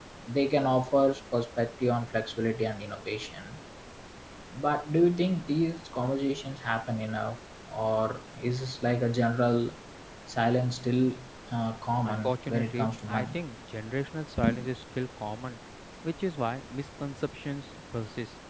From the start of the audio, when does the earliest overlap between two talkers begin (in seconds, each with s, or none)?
12.0 s